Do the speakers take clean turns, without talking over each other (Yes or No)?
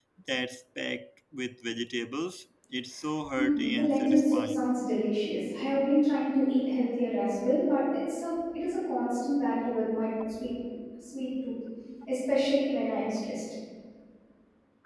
No